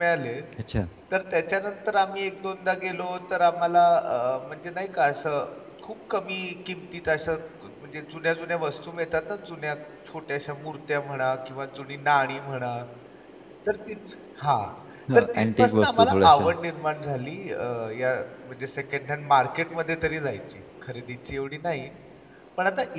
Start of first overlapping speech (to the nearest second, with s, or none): 15 s